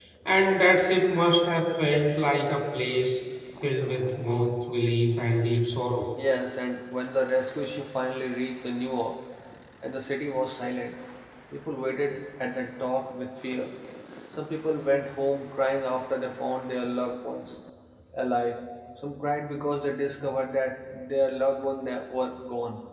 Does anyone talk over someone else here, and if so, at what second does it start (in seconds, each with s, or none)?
none